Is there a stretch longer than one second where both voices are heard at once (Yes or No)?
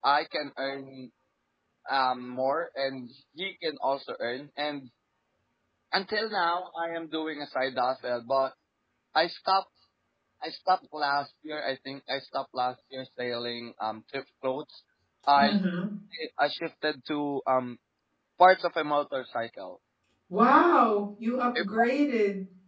No